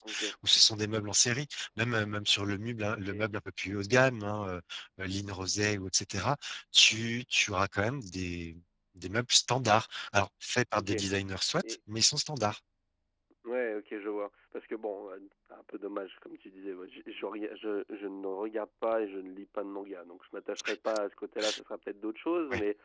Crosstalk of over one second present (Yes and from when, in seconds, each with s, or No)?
No